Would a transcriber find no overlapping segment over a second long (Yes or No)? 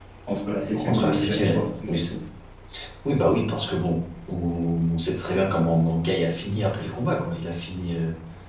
No